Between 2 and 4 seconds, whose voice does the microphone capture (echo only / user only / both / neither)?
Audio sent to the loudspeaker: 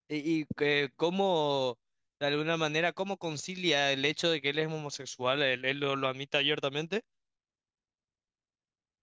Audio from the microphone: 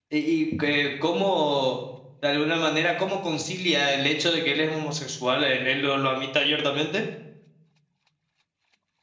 echo only